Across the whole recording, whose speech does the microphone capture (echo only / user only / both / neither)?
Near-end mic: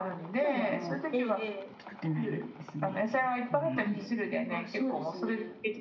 both